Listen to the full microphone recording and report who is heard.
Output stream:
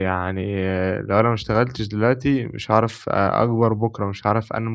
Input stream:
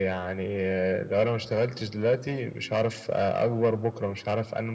echo only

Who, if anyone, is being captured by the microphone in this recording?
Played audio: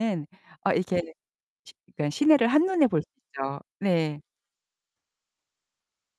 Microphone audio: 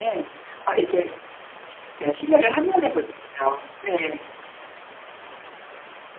echo only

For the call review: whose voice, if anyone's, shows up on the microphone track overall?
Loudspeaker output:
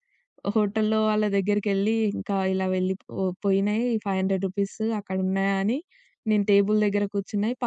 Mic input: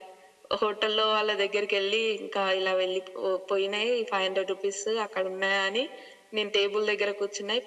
echo only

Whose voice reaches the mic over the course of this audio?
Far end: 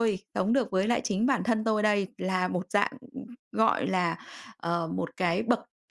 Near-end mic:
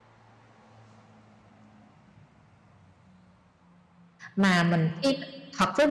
user only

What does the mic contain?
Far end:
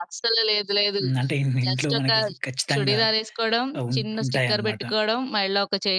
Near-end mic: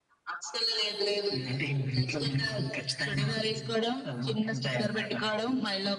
echo only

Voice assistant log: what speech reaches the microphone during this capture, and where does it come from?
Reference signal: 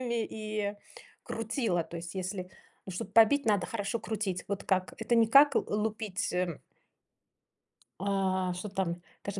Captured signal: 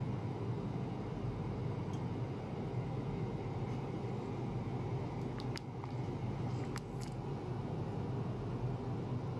neither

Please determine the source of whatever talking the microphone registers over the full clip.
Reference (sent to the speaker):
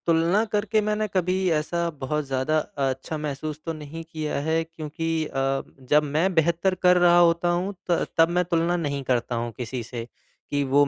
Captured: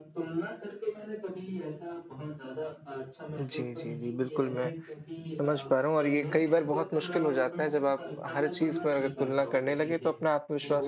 both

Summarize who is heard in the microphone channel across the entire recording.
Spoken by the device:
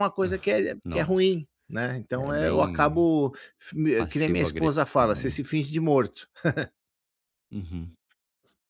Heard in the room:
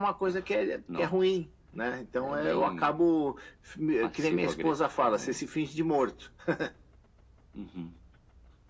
echo only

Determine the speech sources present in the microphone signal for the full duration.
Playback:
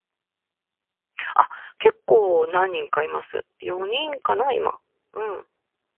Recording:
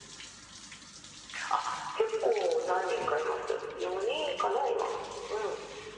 echo only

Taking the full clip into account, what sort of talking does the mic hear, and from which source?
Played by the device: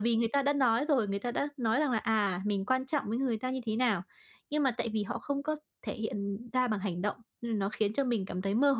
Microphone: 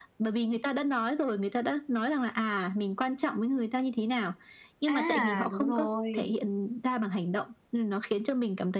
both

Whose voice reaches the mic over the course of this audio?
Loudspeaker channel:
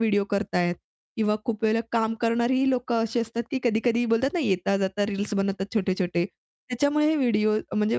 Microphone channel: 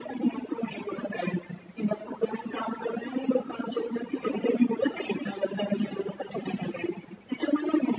echo only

